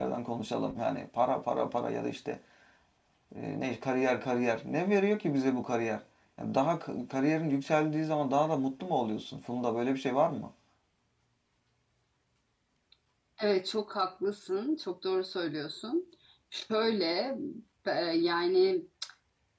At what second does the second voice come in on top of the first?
none

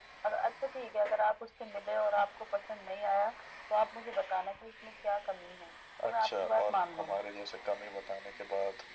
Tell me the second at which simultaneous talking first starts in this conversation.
6 s

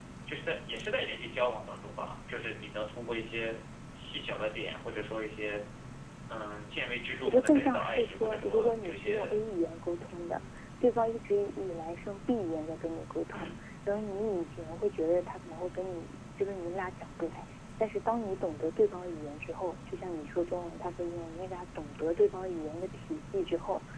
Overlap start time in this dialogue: 7 s

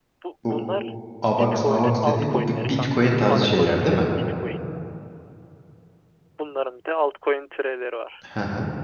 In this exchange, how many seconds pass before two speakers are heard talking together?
1 s

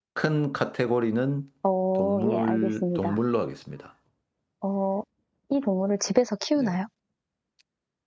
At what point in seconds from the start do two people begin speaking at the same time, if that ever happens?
2 s

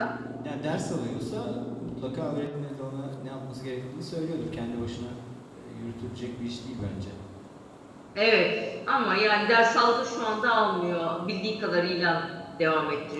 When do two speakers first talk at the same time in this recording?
none

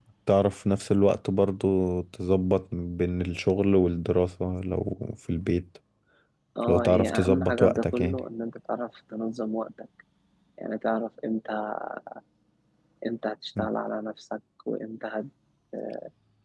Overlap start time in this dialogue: 7 s

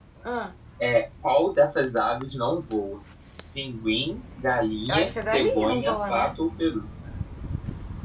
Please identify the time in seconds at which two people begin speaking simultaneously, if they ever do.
5 s

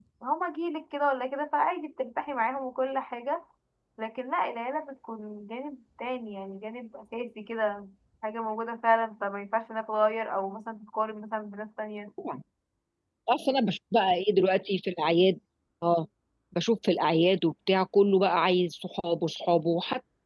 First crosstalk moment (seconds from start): none

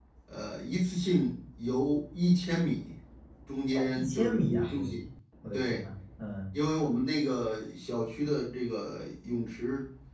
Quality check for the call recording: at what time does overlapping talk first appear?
4 s

